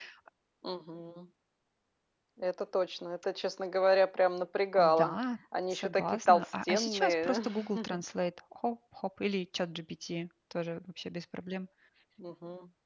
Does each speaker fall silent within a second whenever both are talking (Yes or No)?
No